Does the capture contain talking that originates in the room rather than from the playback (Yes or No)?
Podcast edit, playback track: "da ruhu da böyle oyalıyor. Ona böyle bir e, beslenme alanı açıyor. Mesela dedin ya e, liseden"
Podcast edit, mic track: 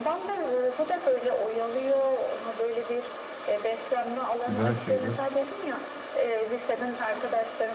Yes